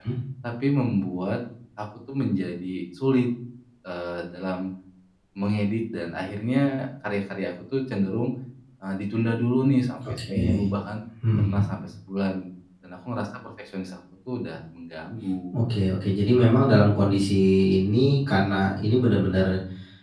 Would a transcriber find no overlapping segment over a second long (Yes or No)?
Yes